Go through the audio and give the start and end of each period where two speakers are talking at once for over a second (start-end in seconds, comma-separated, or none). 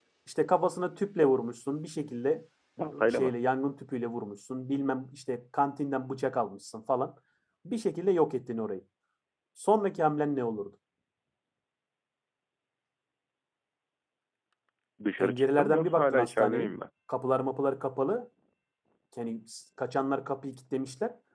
15.2-16.7